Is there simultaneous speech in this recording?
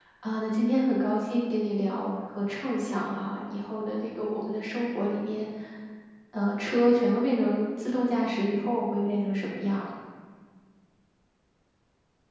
No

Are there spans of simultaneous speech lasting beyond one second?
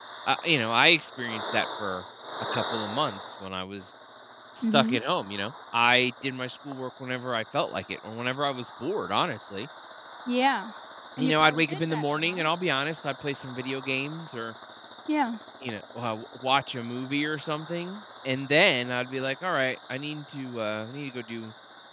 Yes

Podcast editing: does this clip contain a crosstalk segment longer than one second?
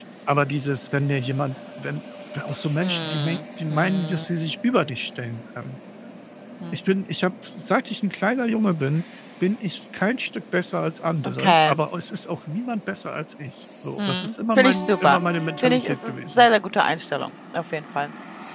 Yes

